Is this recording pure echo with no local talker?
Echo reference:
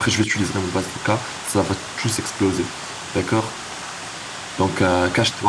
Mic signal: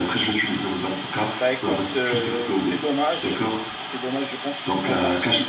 No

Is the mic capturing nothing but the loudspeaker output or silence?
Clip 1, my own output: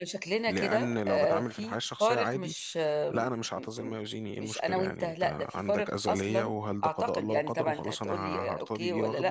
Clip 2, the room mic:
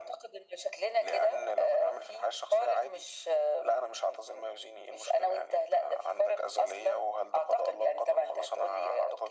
Yes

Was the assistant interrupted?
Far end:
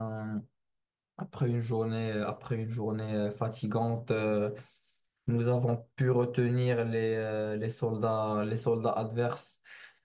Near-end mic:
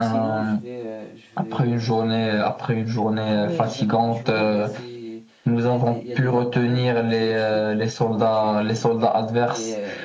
Yes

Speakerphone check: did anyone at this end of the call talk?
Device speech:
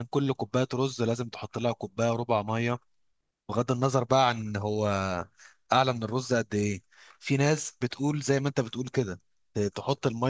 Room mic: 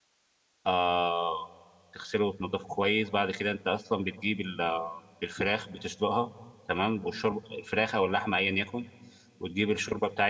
Yes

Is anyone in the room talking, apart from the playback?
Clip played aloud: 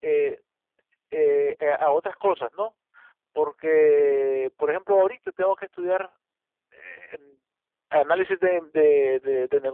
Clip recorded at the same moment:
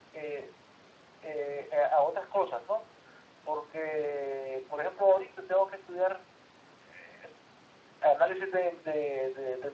No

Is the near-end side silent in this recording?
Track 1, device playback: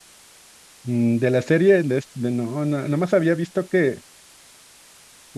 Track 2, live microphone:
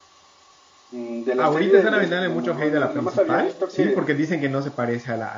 No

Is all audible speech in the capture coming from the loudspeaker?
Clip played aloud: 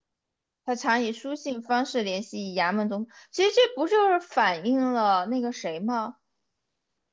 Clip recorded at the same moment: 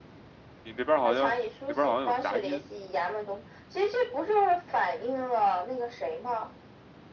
No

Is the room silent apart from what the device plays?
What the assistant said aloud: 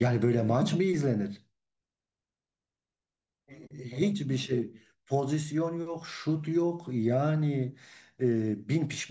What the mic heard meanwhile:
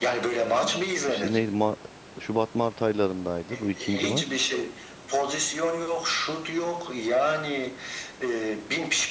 No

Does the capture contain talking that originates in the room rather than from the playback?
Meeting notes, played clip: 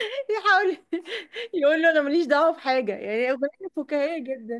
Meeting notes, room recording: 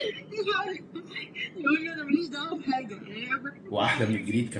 Yes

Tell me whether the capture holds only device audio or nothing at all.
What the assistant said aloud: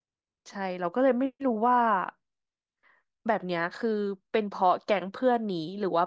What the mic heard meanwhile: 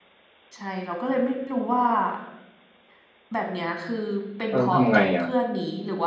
No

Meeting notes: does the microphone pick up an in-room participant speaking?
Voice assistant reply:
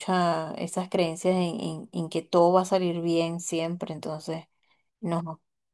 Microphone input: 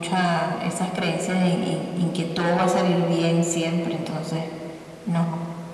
No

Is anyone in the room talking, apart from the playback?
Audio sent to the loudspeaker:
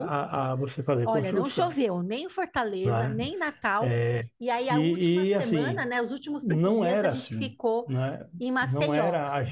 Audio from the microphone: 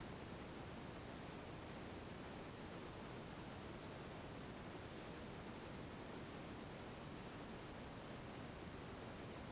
No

